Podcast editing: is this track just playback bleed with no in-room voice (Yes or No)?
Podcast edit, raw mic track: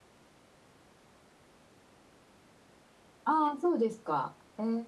No